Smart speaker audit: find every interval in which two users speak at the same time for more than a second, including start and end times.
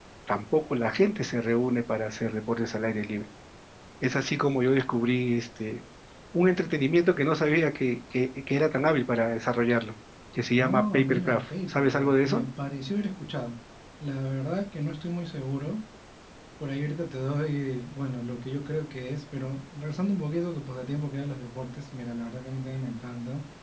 10.6-12.4

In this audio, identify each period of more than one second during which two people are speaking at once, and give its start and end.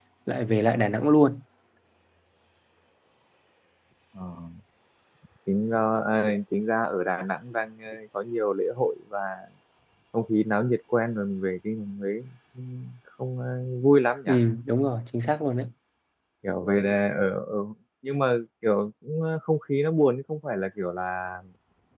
none

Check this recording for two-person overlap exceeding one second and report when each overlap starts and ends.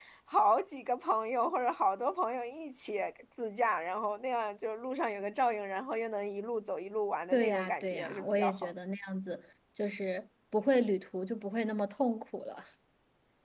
7.3-8.7

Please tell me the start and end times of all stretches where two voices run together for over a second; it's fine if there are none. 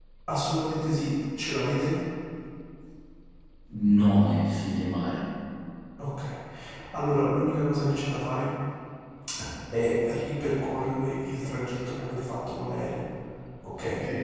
none

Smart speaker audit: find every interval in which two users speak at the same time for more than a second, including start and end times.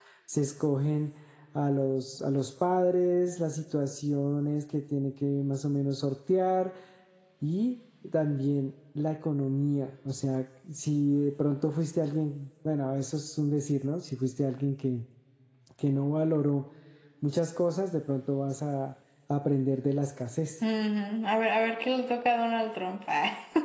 none

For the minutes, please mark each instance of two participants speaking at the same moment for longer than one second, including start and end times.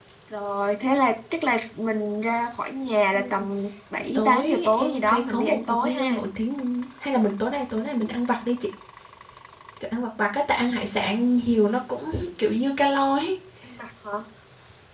4.0-6.2

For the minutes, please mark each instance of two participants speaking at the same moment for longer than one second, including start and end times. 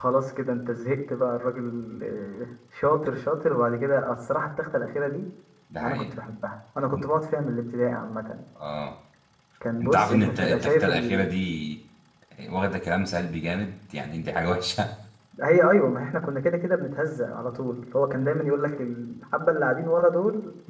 9.8-11.3

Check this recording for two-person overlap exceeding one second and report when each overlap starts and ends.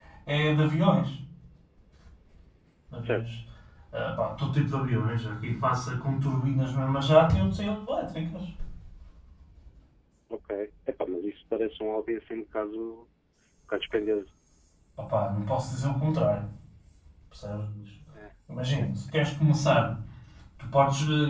none

